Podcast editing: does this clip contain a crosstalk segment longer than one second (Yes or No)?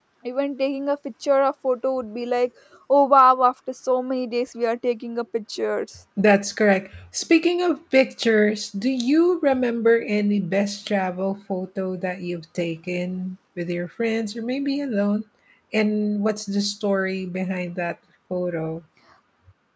No